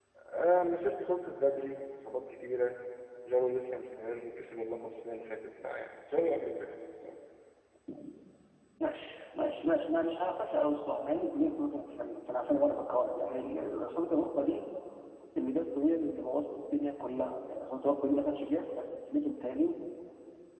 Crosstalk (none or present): none